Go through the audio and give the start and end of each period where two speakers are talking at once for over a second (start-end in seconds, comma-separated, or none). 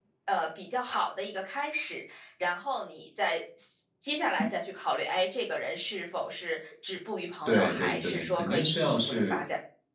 7.5-9.4